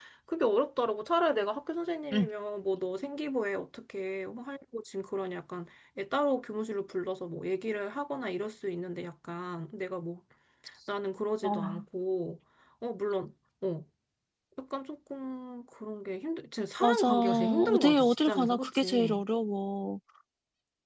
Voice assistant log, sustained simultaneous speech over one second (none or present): present